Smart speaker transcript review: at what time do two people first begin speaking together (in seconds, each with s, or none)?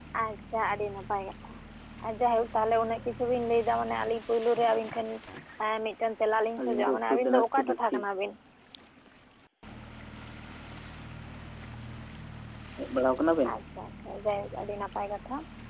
6.6 s